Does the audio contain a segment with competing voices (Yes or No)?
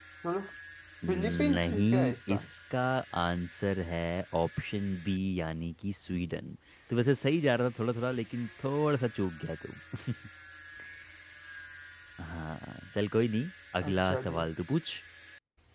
Yes